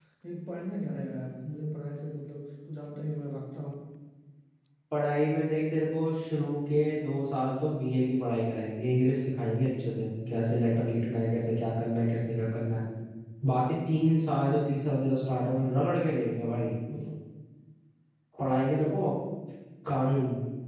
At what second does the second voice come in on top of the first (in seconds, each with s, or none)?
none